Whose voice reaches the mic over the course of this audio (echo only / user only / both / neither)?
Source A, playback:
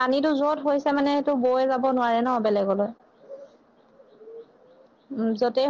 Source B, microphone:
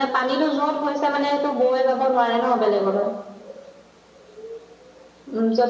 echo only